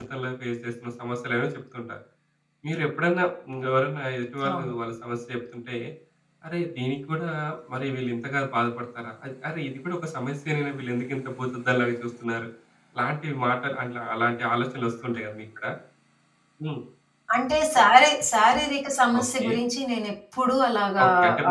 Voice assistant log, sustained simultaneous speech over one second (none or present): none